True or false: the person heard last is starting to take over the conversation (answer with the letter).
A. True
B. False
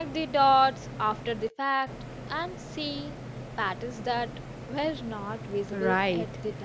A